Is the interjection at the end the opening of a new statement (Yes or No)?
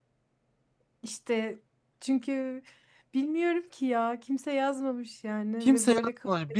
Yes